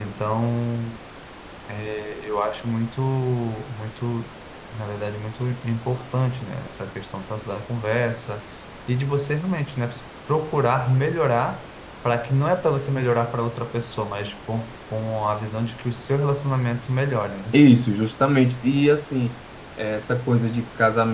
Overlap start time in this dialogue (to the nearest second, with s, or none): none